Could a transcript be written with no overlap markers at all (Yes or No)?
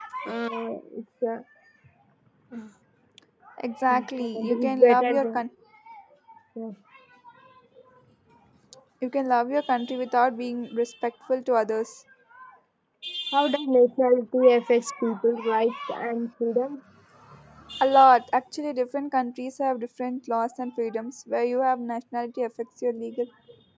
No